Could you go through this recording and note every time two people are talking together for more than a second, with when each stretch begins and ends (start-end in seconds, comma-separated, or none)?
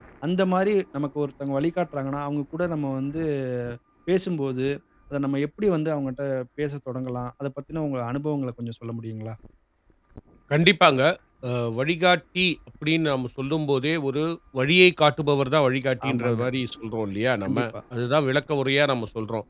none